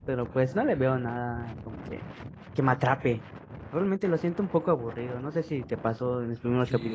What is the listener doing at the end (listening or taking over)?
taking over